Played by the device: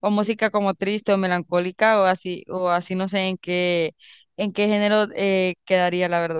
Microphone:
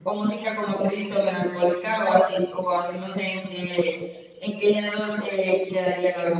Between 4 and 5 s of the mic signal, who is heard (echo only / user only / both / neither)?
echo only